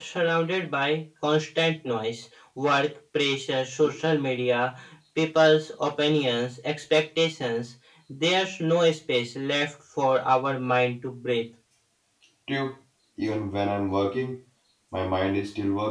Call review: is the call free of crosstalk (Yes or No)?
Yes